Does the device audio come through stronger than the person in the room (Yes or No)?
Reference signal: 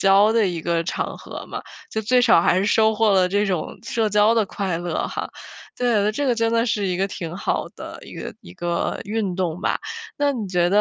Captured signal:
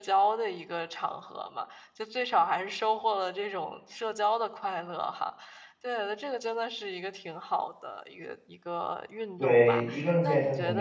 No